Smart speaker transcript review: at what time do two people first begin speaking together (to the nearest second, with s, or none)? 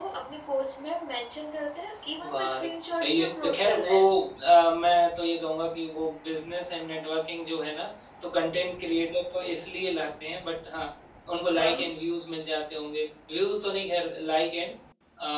2 s